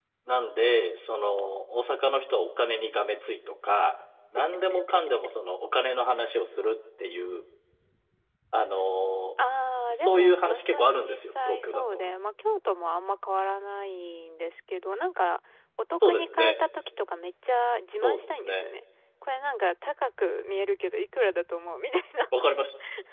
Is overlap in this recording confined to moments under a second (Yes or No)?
No